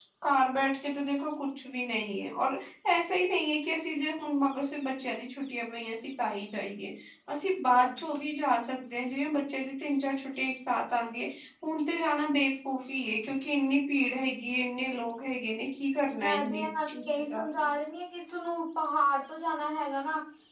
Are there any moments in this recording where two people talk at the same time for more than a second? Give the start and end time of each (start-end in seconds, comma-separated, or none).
16.2-17.7